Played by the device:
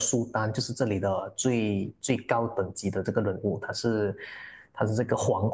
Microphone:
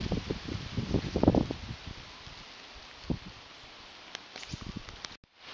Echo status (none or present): none